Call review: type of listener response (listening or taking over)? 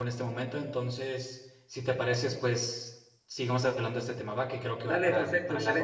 taking over